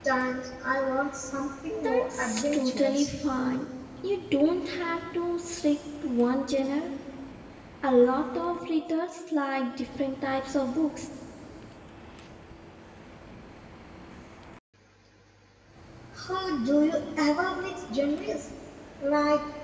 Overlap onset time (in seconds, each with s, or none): 1.7 s